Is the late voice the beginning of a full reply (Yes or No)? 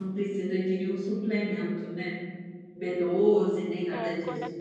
Yes